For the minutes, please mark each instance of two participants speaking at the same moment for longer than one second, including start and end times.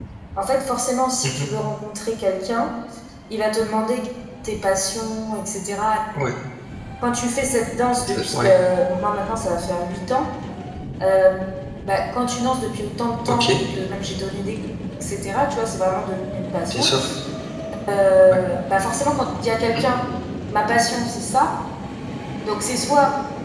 none

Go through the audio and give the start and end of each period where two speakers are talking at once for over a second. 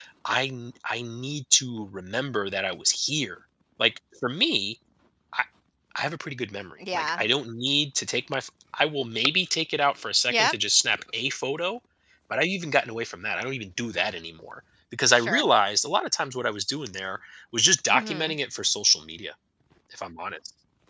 none

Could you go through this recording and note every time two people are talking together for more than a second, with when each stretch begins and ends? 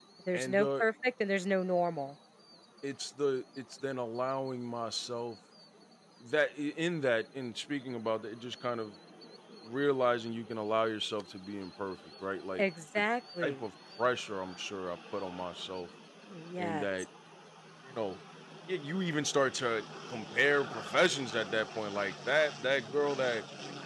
none

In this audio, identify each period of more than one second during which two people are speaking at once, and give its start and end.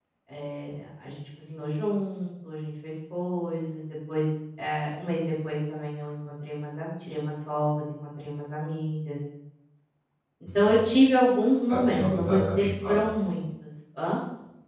11.7-13.0

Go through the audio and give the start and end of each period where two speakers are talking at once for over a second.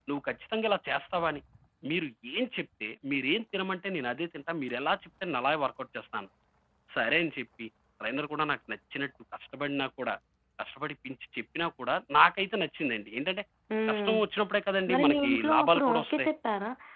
14.9-16.3

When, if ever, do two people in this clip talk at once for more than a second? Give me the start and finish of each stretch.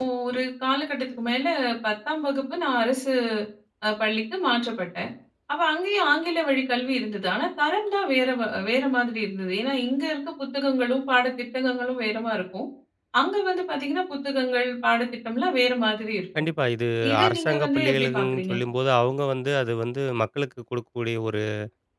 17.2-18.5

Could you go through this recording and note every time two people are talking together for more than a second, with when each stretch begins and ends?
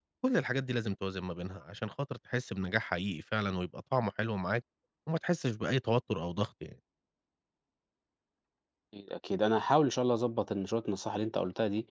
none

